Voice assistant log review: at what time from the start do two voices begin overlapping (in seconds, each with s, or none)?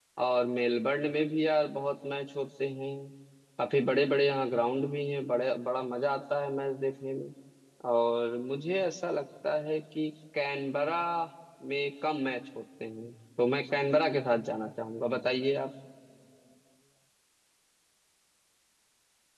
none